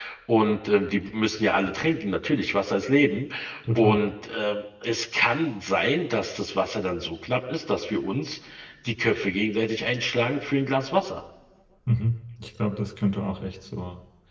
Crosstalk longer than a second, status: none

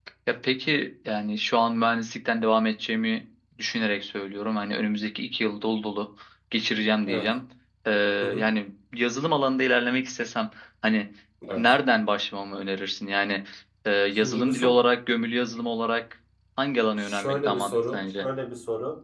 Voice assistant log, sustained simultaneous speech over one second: present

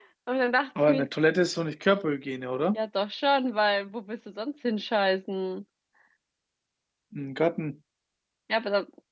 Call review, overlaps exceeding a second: none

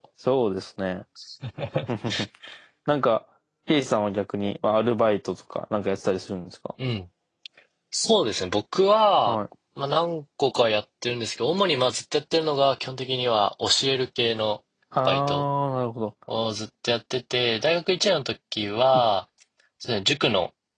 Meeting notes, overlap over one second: none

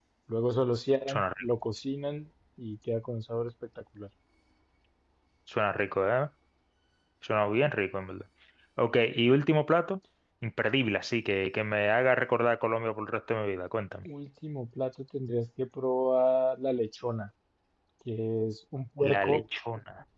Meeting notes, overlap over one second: none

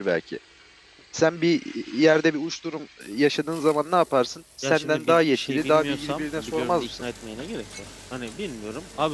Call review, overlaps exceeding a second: present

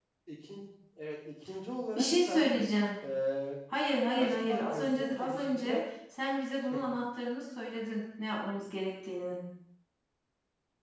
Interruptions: present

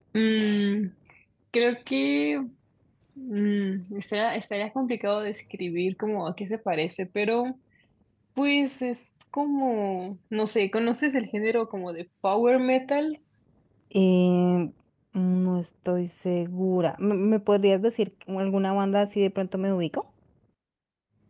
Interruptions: none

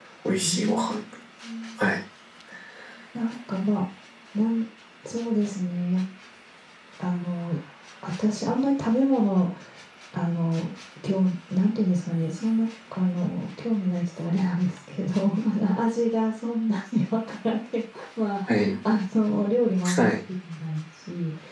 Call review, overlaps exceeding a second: none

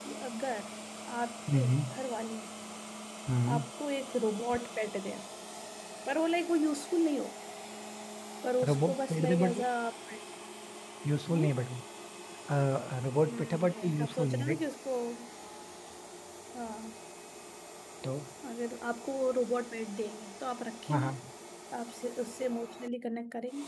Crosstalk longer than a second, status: present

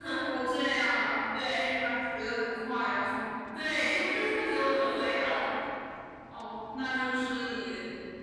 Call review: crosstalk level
none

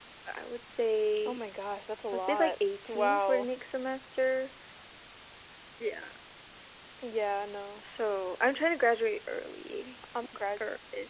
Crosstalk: present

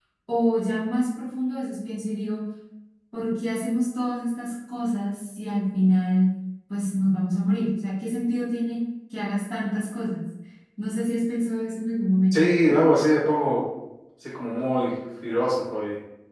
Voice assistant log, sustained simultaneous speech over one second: none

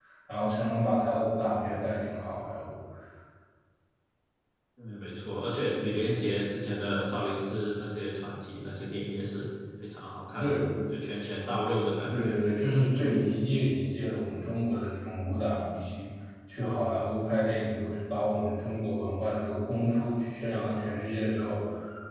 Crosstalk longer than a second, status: none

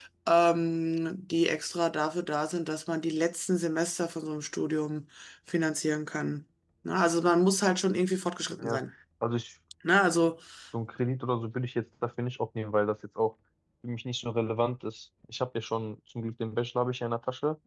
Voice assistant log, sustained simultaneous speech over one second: none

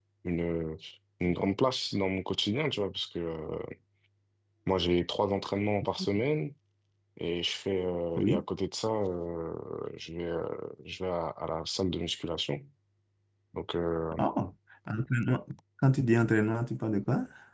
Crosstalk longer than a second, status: none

